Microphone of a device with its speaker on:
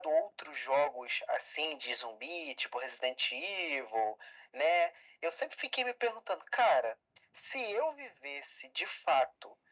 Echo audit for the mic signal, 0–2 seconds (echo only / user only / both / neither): echo only